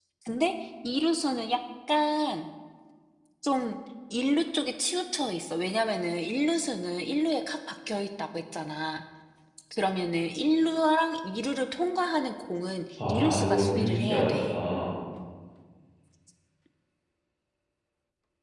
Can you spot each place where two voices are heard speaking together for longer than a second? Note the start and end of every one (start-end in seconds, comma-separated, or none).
13.1-14.6